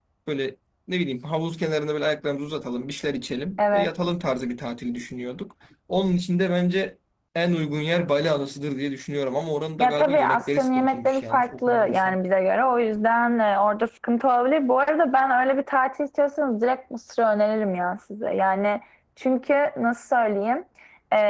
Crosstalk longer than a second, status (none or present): present